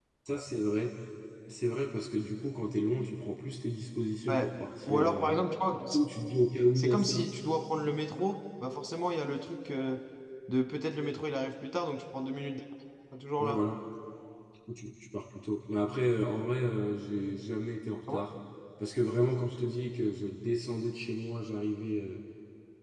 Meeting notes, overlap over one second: none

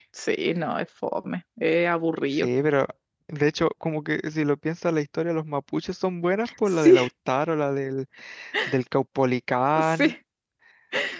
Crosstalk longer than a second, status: none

